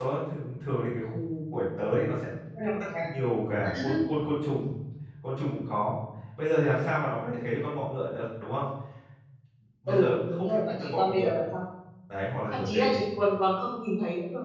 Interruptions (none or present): present